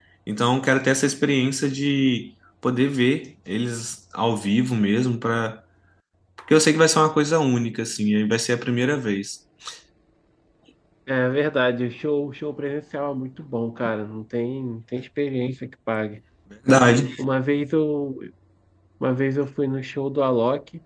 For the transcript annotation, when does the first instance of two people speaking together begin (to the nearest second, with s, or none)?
none